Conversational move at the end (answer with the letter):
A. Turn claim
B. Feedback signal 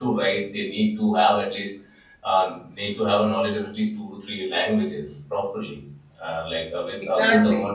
B